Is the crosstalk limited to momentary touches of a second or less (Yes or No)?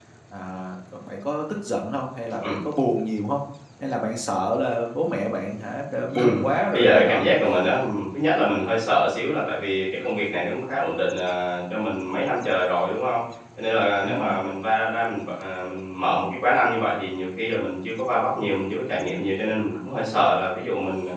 Yes